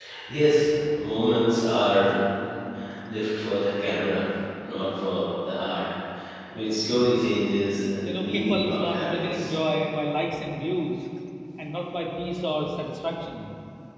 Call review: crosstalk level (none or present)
present